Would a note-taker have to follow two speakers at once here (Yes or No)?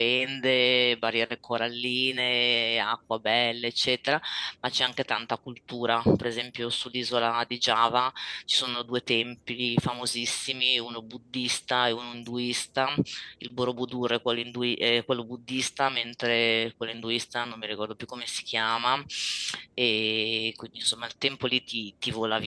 No